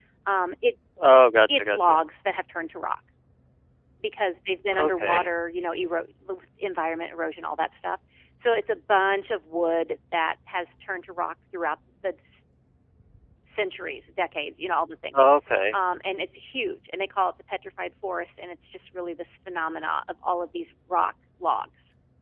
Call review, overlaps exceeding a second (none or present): none